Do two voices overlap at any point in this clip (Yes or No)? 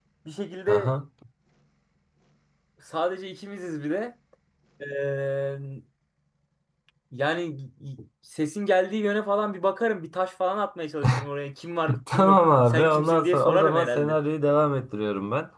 Yes